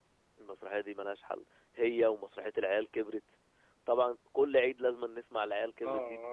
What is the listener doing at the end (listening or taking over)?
taking over